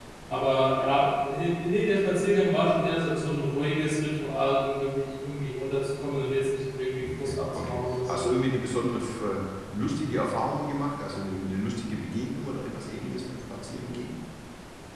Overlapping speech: Yes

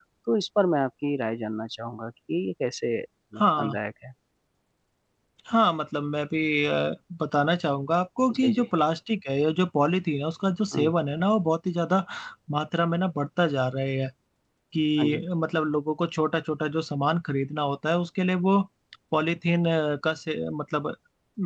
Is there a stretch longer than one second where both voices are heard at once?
No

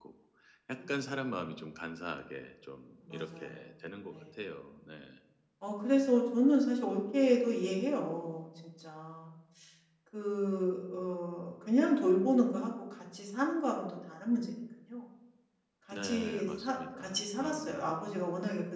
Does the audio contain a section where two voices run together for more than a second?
Yes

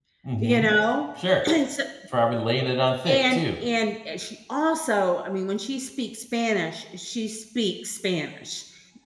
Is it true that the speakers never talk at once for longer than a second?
Yes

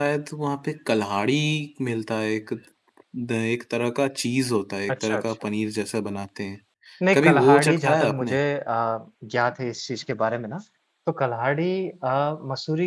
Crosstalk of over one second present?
Yes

